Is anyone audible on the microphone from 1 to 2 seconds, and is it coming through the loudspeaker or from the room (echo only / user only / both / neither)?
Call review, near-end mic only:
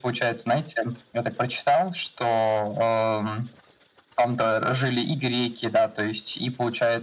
echo only